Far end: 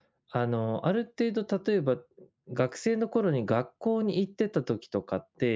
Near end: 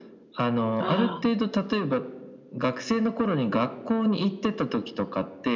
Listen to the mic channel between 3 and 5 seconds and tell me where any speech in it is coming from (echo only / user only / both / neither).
echo only